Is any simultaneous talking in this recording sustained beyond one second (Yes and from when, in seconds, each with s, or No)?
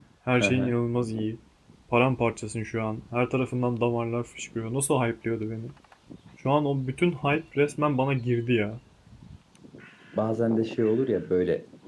No